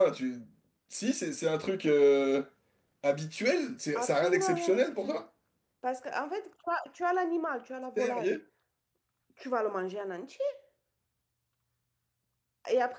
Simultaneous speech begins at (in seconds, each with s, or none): 4.0 s